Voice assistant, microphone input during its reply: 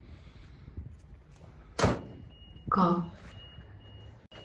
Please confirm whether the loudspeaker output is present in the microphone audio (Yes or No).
No